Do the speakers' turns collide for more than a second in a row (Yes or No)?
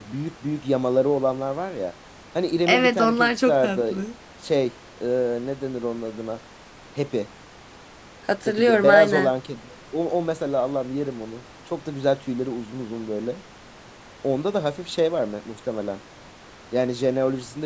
Yes